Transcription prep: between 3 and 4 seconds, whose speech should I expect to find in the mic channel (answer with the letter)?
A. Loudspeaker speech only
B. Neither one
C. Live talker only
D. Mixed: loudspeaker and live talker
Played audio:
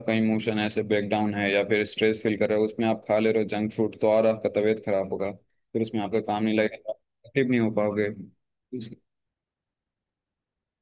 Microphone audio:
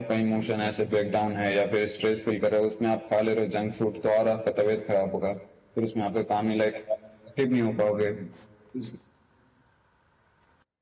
A